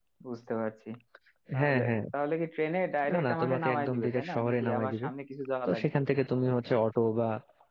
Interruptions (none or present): present